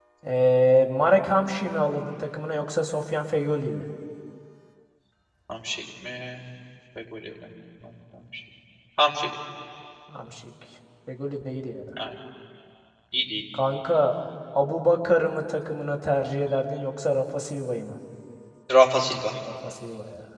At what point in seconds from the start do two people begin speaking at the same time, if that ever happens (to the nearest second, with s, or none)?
none